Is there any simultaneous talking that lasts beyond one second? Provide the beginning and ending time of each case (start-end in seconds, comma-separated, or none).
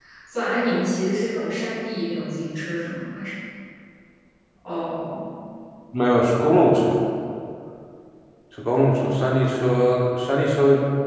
none